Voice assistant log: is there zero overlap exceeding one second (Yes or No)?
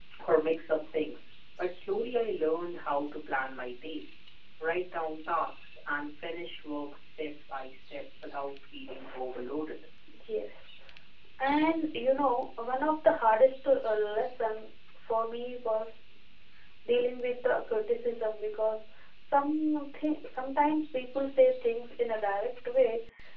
Yes